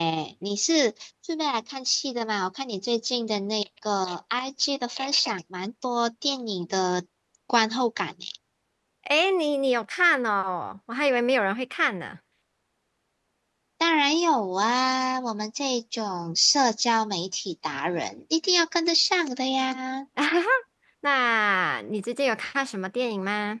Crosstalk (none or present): none